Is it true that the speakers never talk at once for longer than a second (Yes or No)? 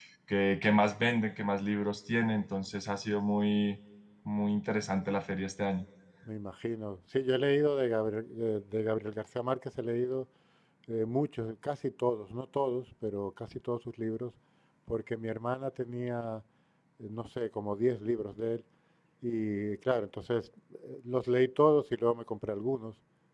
Yes